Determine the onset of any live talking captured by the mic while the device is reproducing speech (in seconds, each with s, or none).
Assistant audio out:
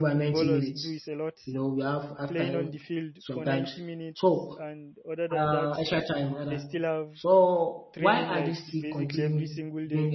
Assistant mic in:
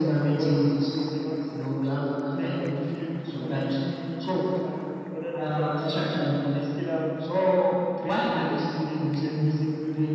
none